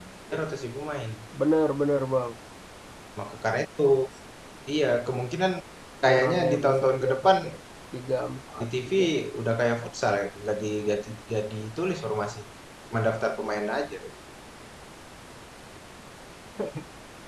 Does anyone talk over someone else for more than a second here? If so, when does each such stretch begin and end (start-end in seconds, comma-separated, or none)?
6.0-7.3